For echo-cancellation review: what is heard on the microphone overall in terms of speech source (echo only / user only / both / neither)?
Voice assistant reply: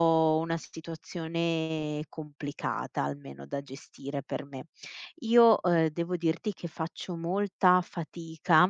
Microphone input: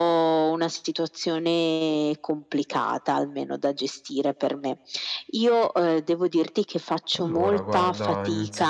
both